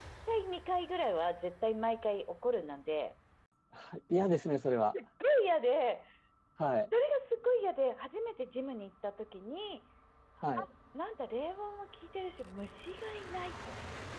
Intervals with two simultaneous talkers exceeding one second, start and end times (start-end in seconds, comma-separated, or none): none